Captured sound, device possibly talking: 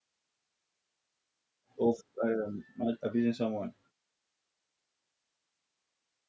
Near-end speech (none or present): present